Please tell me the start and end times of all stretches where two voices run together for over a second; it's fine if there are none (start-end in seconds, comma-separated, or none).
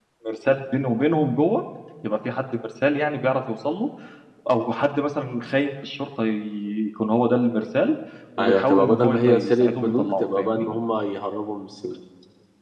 8.4-10.7